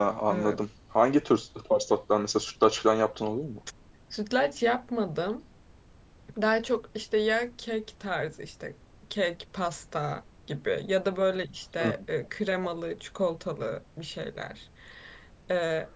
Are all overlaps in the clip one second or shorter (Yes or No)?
Yes